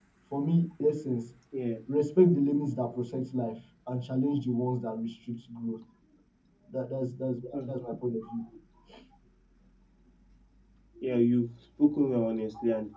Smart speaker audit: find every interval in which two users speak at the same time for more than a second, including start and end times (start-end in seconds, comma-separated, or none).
none